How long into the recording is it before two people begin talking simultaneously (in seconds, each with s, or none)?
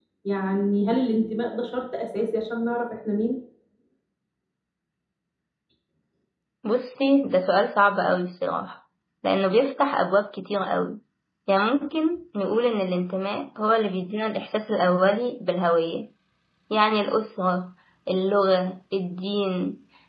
none